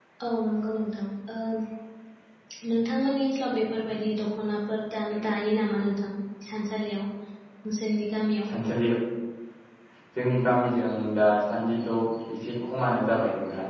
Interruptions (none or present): none